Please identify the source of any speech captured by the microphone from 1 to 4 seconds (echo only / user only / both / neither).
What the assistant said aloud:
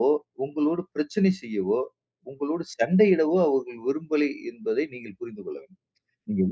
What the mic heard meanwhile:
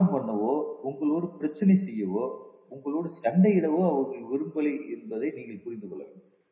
echo only